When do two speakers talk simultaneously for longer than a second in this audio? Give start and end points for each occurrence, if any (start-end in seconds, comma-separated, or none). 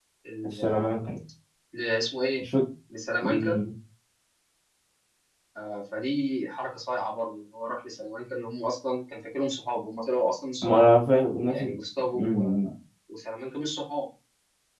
none